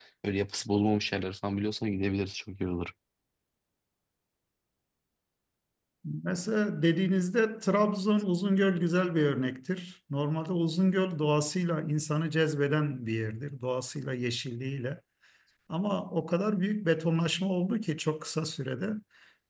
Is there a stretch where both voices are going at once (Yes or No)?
No